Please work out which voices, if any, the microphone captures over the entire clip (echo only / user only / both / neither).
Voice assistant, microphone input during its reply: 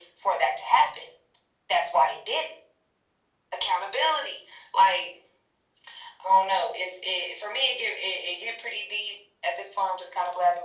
echo only